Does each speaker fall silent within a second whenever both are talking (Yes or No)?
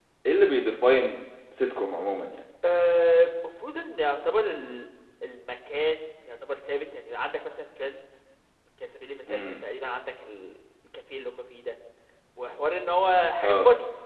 Yes